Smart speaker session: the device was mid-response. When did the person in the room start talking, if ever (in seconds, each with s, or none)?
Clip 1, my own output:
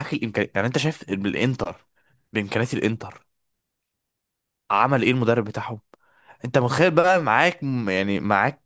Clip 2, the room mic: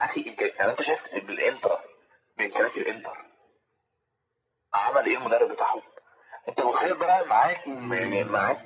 7.7 s